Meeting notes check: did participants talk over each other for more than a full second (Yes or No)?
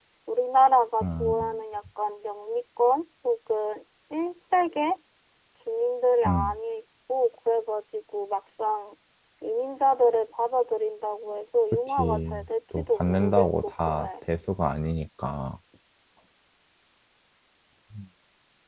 Yes